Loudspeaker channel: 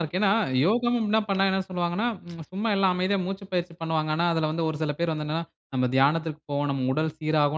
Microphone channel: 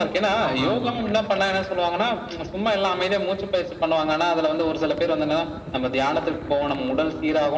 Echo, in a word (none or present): present